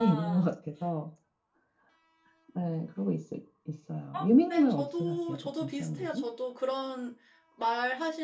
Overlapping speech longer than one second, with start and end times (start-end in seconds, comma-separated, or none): 4.5-6.2